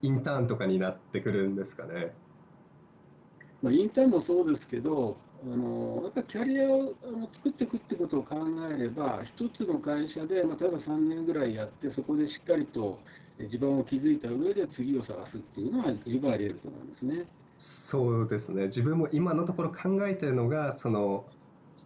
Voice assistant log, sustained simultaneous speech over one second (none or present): none